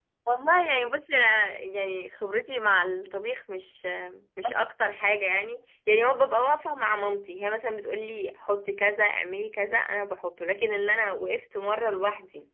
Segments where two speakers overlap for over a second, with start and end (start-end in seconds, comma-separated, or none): none